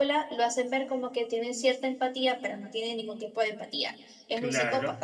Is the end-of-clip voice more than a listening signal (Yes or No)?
Yes